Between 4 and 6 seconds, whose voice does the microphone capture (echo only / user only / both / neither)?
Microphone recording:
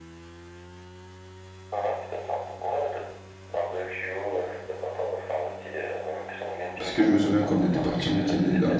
echo only